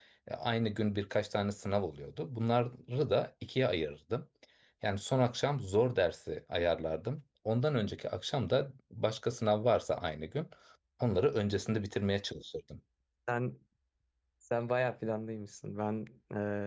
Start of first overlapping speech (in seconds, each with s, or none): none